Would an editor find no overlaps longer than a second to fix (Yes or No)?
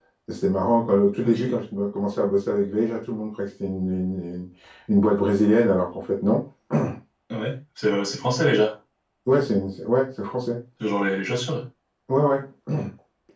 Yes